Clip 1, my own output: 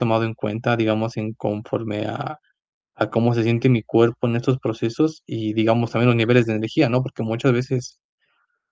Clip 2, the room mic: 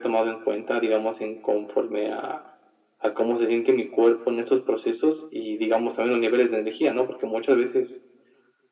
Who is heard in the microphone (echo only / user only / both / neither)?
echo only